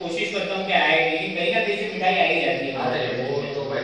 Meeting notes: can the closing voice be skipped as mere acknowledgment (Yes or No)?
No